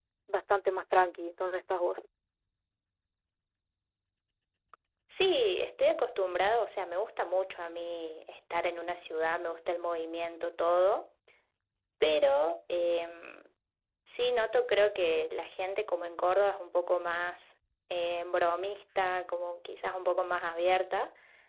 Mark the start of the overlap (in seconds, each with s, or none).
none